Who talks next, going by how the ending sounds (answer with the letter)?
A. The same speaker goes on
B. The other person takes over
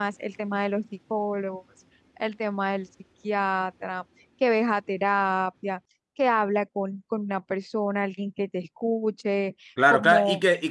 B